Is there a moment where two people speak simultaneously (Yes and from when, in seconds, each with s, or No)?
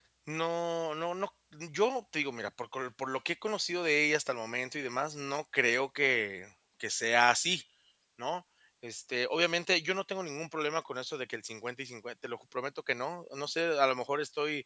No